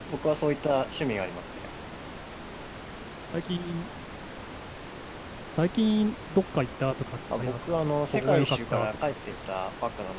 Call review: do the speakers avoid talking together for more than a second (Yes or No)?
No